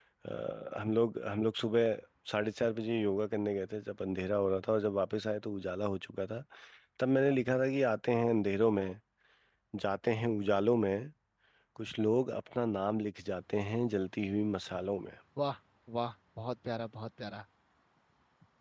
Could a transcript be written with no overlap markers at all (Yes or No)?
Yes